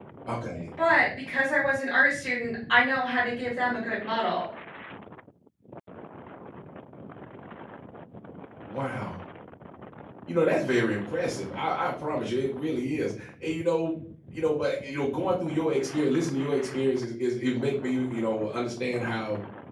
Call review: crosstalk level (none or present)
none